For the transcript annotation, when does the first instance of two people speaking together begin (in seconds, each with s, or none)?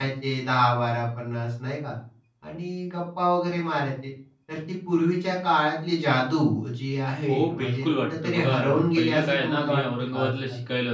7.3 s